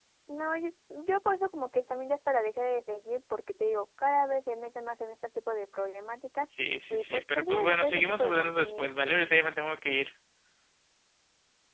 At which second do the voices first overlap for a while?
6.9 s

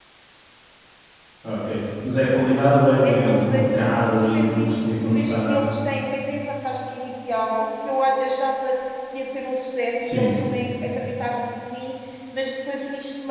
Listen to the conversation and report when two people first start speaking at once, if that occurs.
3.0 s

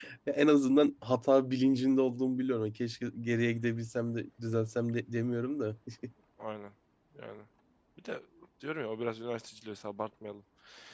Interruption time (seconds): none

